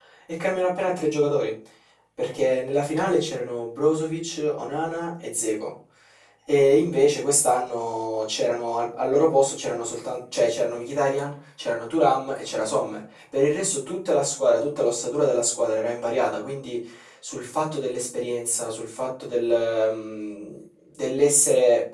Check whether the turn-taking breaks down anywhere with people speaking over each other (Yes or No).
No